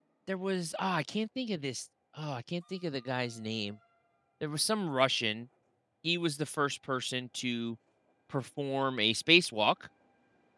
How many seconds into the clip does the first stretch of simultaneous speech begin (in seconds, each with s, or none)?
none